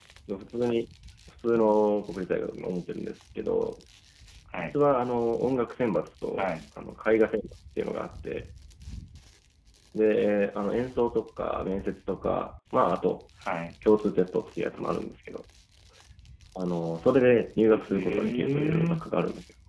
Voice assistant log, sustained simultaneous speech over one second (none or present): present